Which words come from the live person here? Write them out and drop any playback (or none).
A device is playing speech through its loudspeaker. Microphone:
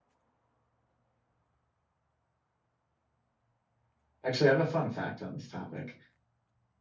actually, I have a fun fact on this topic.